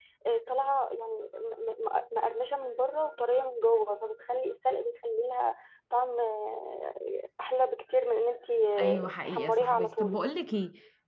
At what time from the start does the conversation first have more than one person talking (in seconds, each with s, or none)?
8.8 s